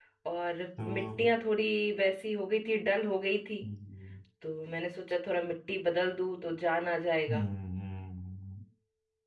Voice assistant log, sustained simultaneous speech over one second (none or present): none